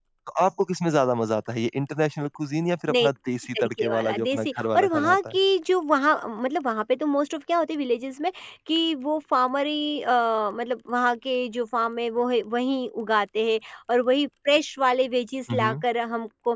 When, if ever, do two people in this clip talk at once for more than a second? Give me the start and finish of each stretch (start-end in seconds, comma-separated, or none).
3.6-5.4